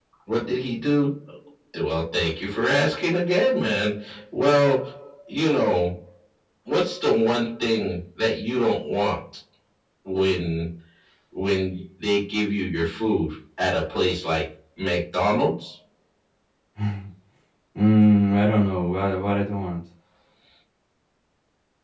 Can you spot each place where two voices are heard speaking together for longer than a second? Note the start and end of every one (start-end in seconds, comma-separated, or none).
none